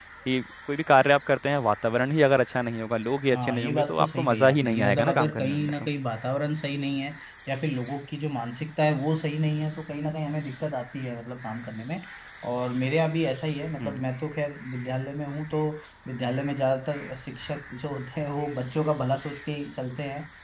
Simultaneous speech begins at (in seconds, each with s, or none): 3.3 s